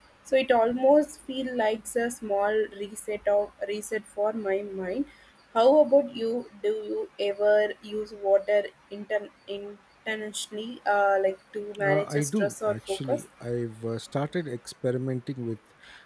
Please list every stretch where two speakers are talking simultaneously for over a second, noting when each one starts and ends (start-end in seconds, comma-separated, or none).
11.8-13.2